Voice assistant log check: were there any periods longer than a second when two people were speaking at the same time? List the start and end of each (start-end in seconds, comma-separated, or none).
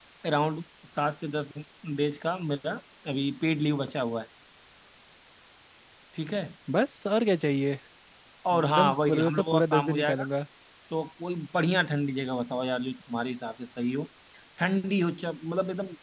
8.5-10.2